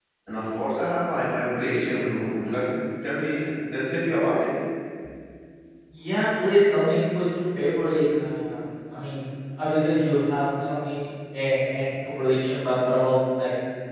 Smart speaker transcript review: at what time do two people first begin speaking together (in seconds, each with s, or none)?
none